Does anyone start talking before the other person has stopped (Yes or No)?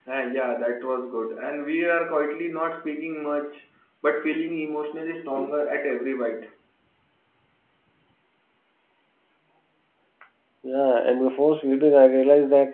No